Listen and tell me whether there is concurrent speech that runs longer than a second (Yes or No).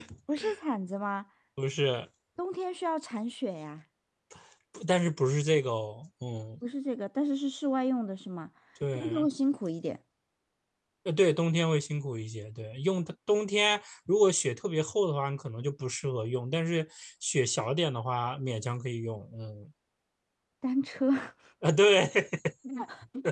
No